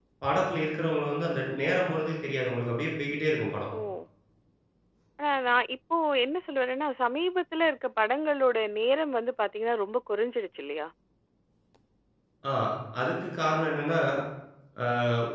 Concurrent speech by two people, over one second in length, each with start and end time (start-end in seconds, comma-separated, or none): none